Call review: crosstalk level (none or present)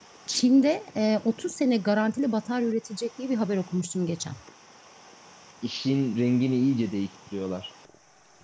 none